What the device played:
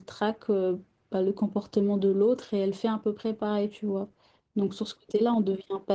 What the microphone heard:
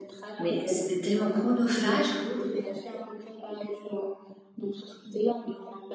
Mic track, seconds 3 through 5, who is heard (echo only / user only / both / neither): echo only